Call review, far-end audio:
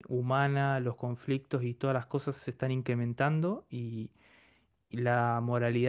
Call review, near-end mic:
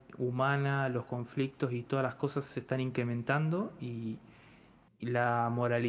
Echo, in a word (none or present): present